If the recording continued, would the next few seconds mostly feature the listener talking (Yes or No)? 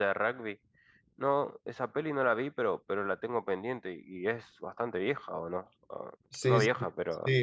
Yes